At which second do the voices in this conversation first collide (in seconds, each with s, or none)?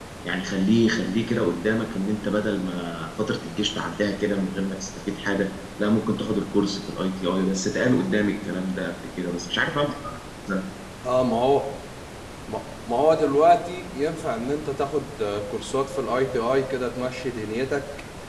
none